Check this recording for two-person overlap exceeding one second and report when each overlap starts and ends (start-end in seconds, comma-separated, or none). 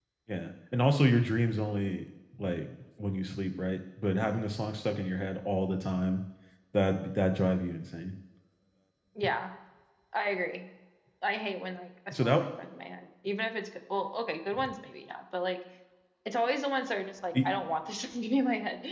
none